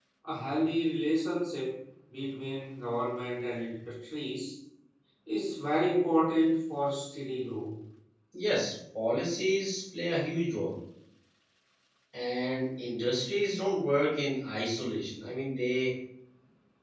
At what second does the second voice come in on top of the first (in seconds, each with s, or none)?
none